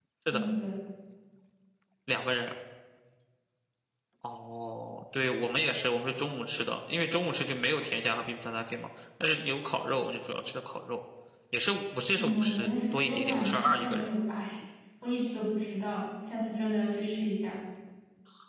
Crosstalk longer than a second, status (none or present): present